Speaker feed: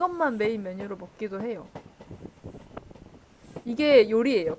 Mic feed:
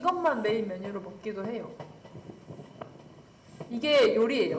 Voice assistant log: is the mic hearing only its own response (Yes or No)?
Yes